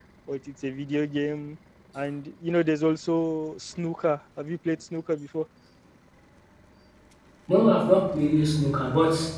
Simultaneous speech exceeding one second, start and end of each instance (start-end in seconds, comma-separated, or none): none